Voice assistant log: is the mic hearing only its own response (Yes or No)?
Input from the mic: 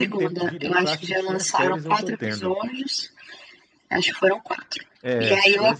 No